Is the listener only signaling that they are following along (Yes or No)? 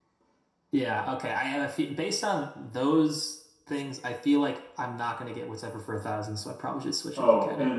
No